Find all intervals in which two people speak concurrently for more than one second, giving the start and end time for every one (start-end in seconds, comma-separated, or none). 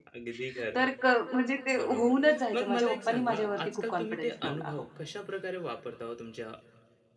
2.5-4.8